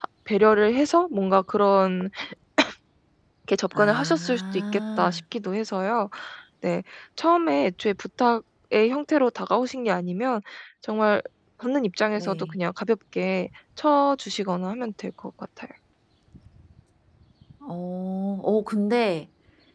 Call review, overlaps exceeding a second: present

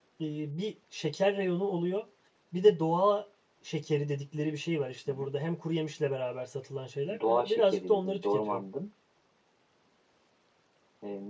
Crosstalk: present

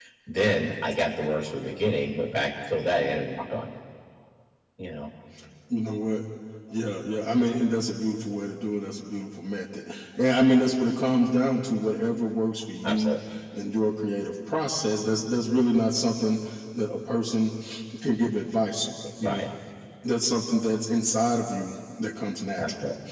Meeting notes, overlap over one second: none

